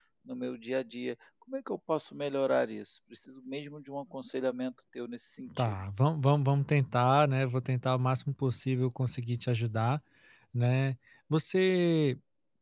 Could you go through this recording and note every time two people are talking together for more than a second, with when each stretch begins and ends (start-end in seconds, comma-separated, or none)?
none